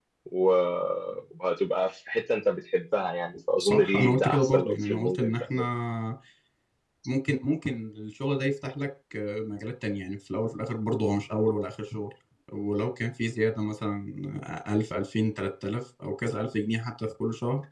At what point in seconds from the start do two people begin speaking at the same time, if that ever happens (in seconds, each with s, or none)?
3.6 s